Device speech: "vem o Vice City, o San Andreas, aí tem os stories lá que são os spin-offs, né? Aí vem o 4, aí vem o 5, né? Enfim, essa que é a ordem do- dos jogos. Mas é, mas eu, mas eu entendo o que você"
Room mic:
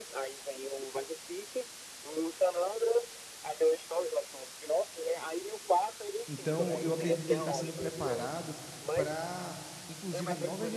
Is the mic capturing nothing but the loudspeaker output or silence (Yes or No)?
No